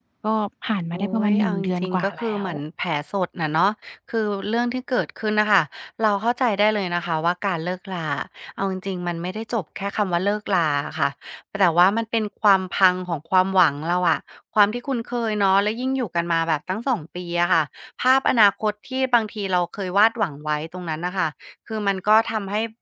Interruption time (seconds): 1 s

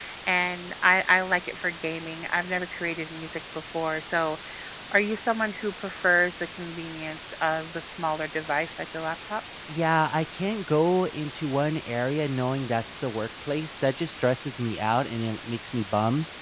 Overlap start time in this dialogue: none

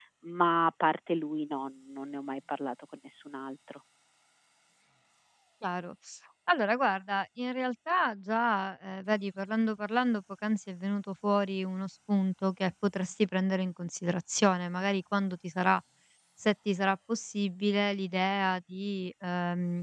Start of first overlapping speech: none

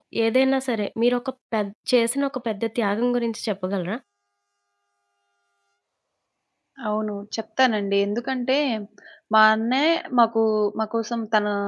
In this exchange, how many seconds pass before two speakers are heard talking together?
none

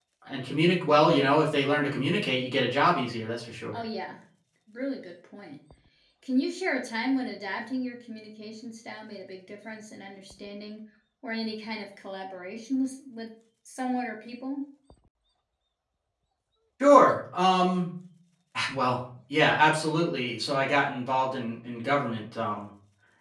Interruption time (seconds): none

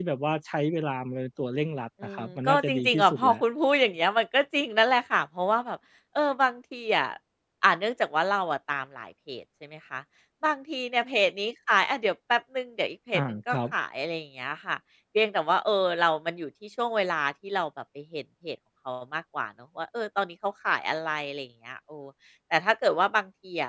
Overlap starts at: 2 s

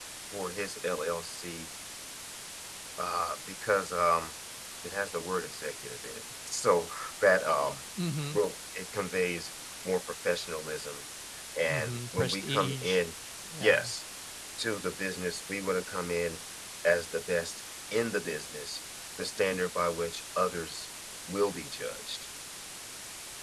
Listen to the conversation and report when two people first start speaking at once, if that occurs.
12 s

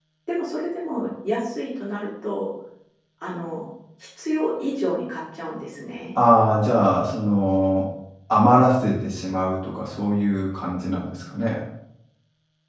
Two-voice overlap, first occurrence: none

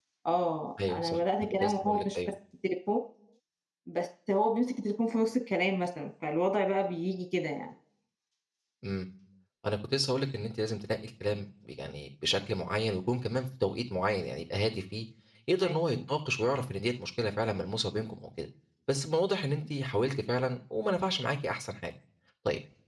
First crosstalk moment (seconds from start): 1 s

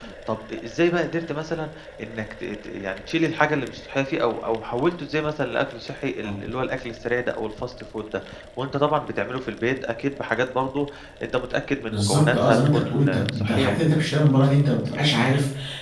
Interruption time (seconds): 12 s

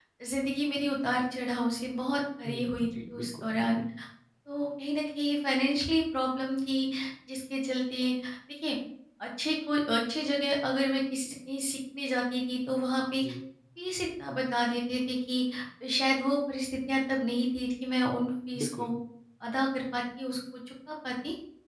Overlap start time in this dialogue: 2 s

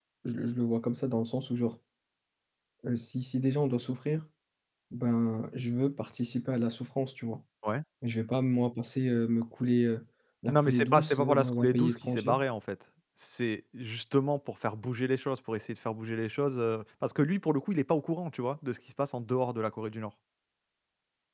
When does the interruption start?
10 s

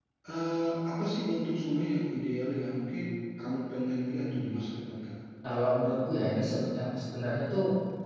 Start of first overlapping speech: none

